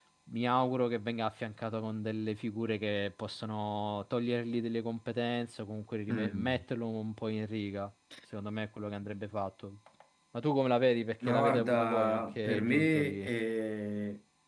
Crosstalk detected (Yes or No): Yes